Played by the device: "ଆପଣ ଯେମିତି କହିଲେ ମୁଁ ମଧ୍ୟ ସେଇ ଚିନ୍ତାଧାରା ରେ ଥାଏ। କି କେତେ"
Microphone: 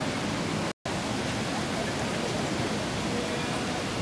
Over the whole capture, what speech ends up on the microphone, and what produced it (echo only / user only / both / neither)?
neither